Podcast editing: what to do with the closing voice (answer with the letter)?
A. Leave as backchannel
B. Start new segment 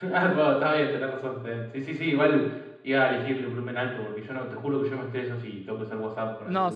B